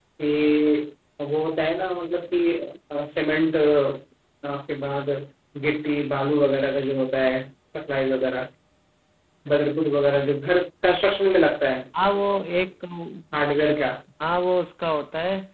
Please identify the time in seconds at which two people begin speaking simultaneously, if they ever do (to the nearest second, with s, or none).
none